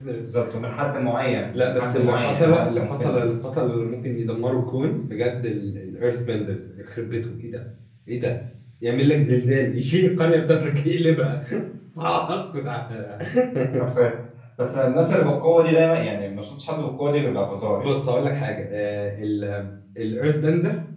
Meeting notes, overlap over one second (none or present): present